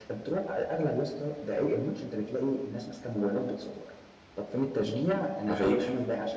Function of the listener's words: listening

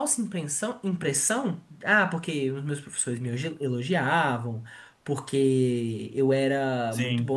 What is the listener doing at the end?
listening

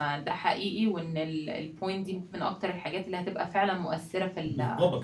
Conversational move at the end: taking over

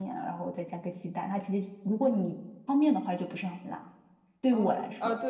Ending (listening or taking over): taking over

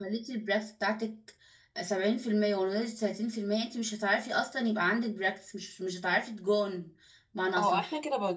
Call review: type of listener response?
taking over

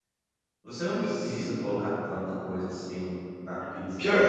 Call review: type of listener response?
taking over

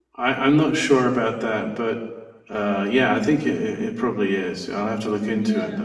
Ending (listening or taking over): taking over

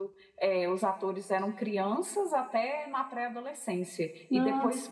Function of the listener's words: listening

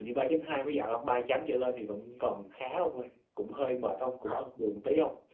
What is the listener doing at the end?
listening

